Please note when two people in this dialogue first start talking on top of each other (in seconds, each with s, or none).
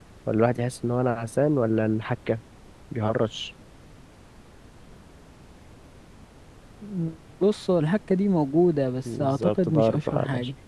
9.1 s